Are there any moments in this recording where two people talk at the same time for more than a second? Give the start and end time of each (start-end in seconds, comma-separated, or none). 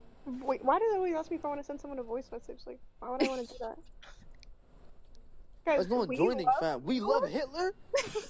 5.8-7.3